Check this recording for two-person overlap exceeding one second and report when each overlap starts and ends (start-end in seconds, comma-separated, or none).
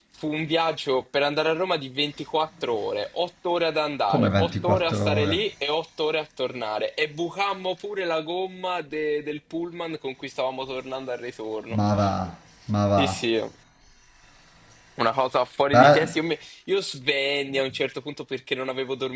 4.1-5.4